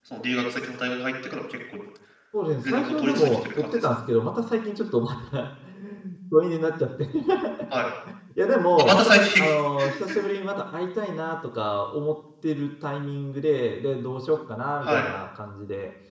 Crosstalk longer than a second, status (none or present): present